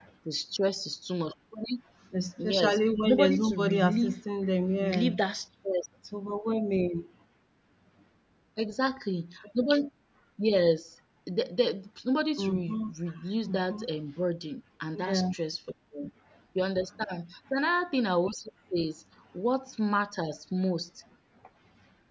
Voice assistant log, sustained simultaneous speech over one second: present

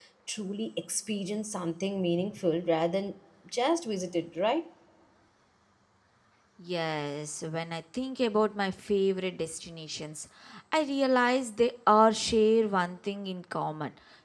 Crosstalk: none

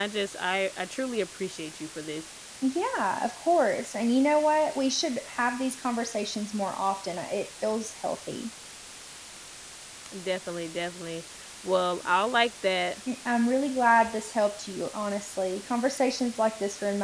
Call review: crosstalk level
none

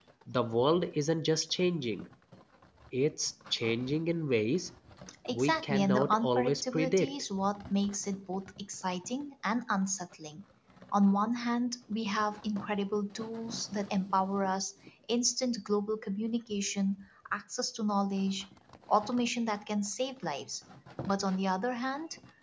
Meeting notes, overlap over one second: present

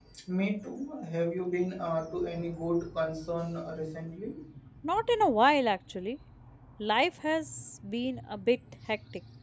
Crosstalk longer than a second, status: none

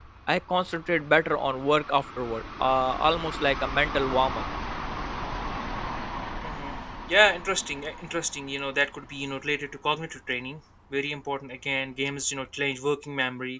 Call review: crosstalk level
none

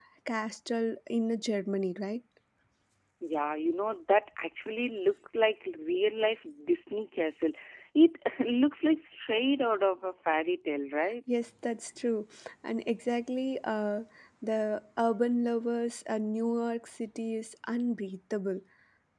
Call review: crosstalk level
none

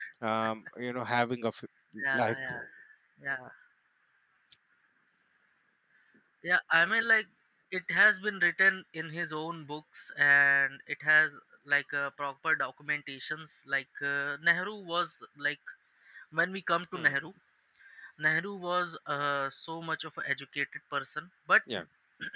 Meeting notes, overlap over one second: none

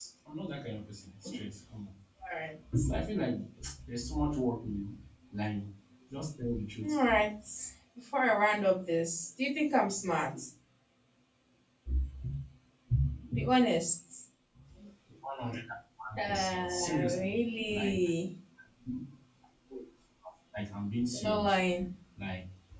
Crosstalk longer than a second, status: present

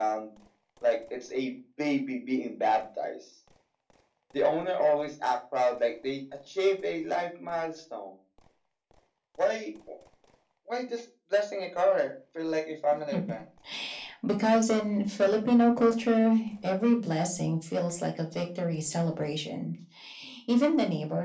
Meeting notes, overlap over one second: none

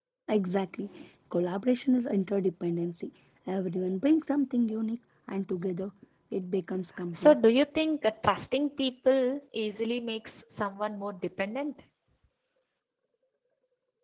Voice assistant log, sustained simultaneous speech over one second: none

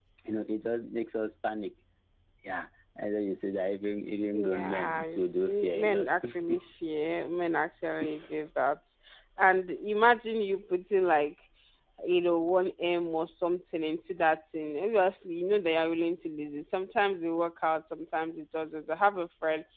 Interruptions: present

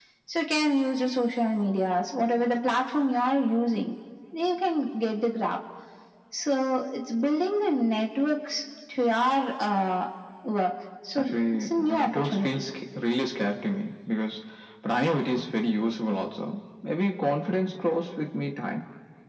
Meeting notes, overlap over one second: present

